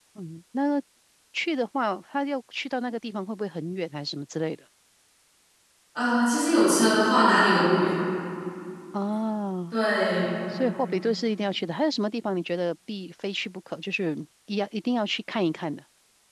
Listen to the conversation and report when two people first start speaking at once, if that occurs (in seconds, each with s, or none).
none